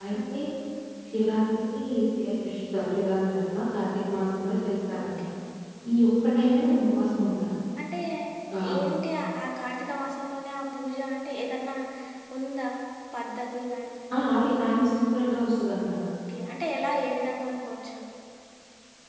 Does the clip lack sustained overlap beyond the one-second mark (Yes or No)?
Yes